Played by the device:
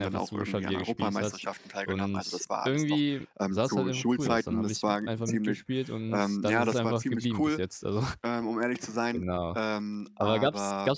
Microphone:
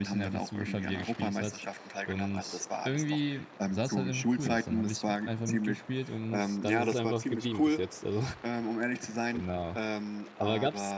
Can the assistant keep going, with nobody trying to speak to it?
Yes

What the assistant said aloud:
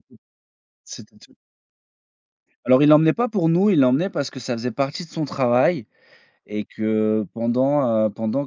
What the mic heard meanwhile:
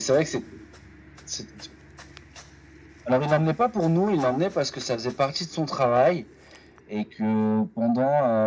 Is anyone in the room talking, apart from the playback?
No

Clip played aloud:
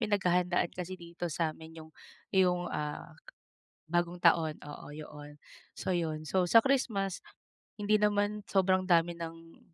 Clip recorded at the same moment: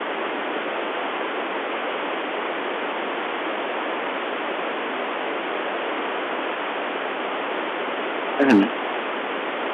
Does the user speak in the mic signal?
Yes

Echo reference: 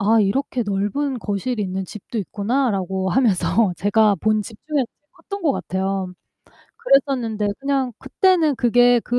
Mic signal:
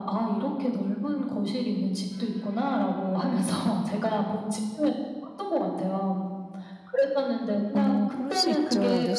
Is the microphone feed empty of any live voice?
No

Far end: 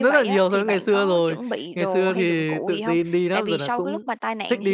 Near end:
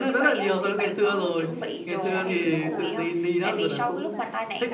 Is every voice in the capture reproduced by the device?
No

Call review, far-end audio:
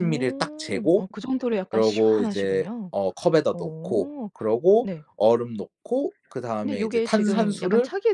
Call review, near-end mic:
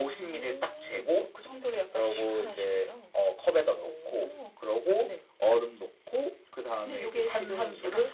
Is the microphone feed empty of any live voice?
Yes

